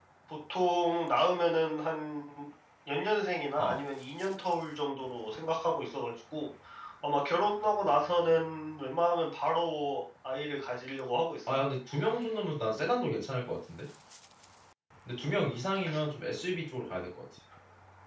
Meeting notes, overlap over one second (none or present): none